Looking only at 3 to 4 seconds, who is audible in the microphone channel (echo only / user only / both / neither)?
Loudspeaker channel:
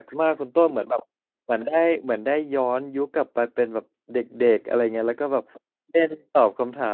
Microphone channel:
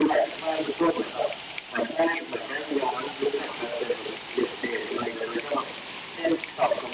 echo only